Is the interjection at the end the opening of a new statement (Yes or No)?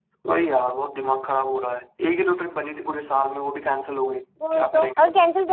Yes